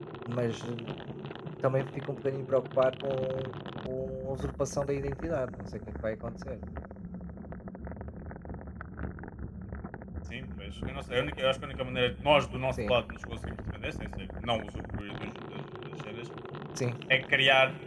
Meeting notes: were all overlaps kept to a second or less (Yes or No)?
Yes